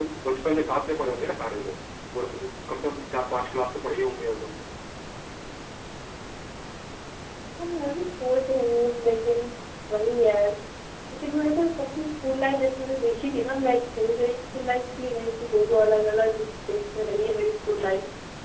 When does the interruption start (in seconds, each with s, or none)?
none